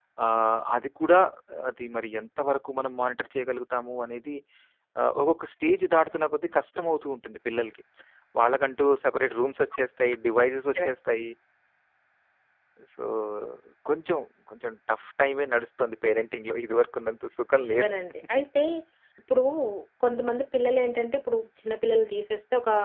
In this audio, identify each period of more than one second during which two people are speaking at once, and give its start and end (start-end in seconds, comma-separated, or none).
none